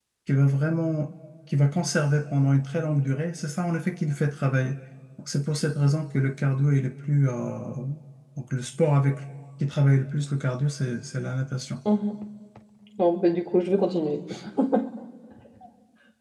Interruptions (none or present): none